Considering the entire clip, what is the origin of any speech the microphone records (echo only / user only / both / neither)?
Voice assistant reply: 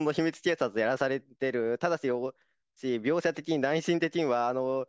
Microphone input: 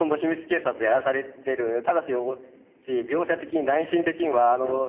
both